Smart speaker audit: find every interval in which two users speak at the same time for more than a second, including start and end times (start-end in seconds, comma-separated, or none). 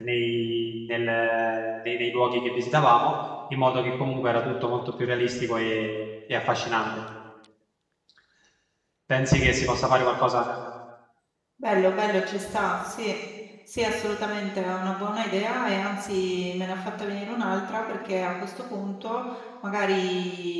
none